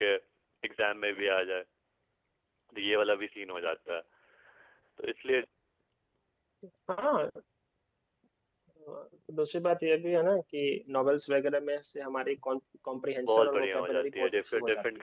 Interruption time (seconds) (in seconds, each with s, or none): 13.3 s